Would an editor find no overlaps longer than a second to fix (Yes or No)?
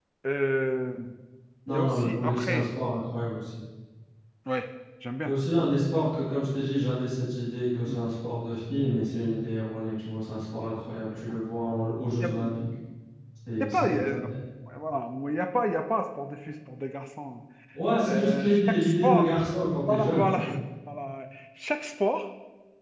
No